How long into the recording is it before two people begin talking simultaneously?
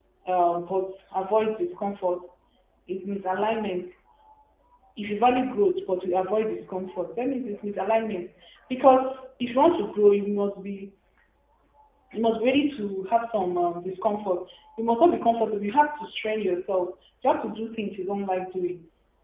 none

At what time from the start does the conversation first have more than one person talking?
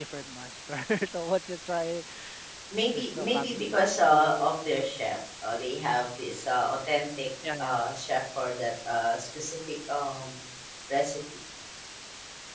2.9 s

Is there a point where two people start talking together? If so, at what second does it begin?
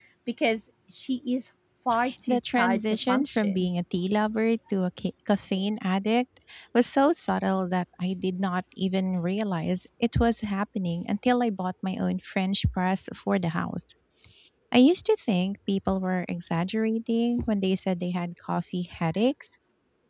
2.0 s

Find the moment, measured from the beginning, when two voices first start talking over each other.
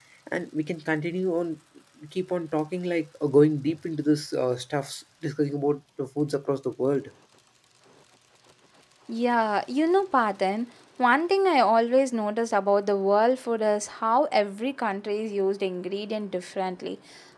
none

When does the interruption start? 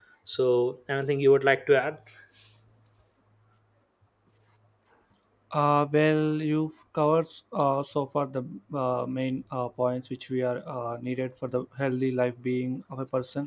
none

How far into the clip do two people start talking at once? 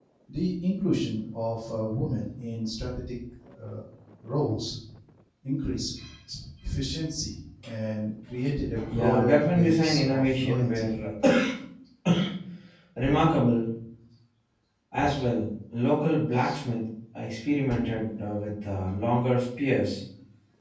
8.7 s

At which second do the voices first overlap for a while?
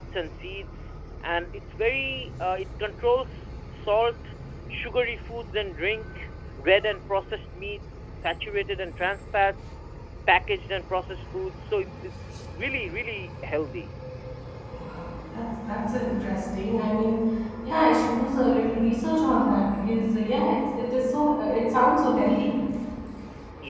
none

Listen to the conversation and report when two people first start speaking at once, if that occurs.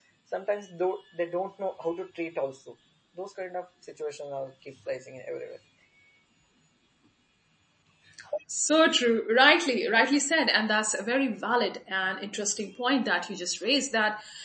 none

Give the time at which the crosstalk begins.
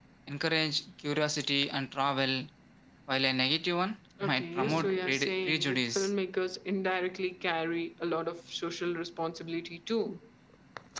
4.2 s

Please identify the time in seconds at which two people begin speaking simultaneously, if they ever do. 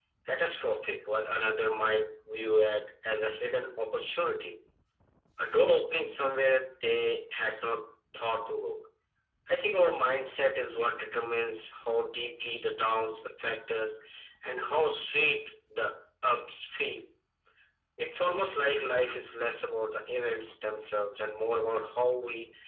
none

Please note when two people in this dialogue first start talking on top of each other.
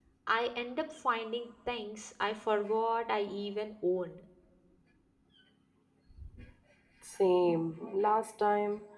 none

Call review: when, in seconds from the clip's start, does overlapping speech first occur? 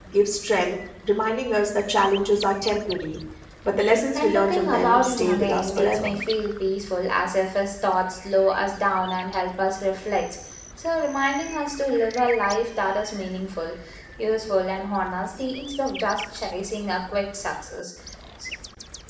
4.2 s

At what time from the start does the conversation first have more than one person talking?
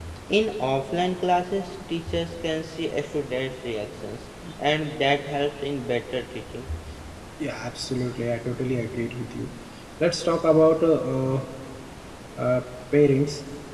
none

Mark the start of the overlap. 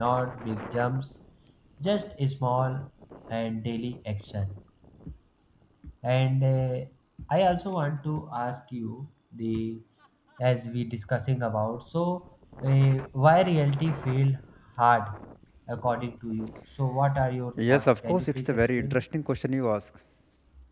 17.6 s

